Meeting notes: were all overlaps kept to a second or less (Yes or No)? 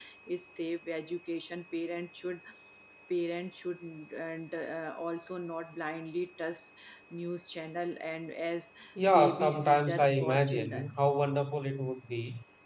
No